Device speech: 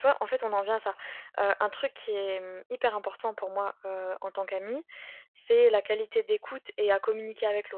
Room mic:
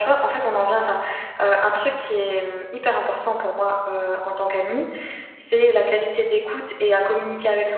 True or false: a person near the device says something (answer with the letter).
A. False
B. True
A